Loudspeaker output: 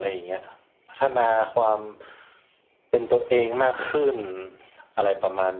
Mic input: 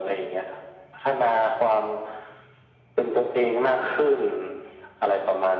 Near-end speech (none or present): none